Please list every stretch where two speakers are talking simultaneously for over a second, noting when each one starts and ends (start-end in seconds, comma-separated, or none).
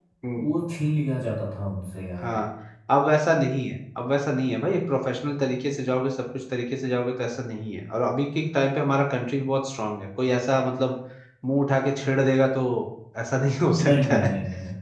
none